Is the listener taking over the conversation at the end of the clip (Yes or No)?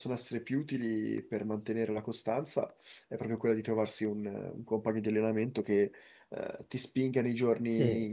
No